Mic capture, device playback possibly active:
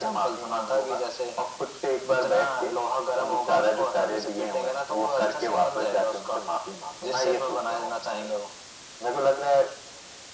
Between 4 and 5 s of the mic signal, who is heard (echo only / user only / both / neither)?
echo only